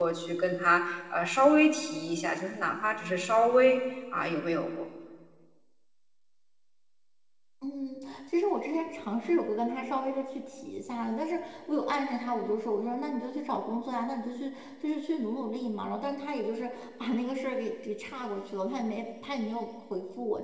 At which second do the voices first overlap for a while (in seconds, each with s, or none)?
none